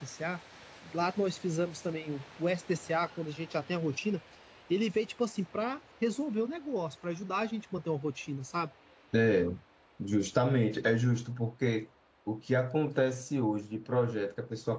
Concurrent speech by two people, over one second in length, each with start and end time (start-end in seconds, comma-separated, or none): none